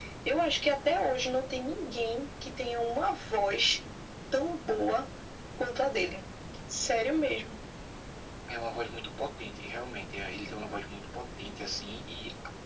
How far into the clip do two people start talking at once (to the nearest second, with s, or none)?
none